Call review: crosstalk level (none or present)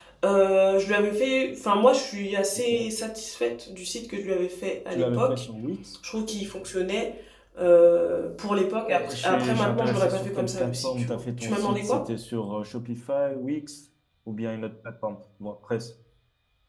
present